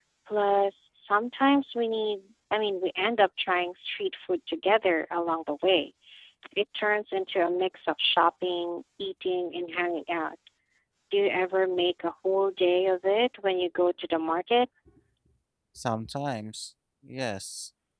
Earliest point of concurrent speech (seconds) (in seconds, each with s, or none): none